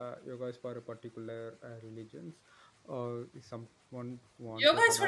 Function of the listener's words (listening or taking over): taking over